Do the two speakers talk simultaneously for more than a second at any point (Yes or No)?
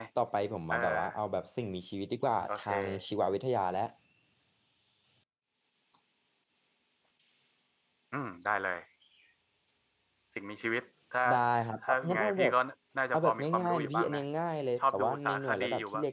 Yes